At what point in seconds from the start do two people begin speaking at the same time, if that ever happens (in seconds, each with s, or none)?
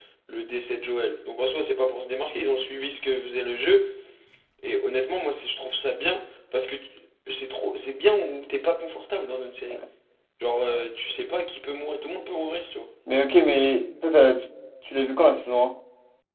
none